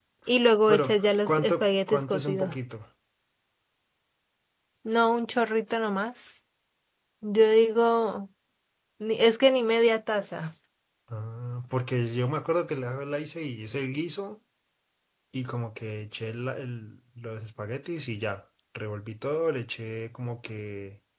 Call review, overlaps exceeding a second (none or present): present